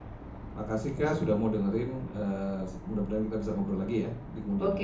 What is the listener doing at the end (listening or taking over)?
taking over